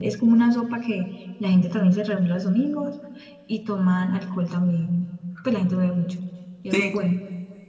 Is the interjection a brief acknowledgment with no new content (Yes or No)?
No